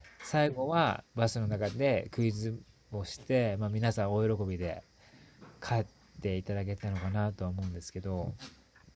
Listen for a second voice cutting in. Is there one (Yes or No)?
No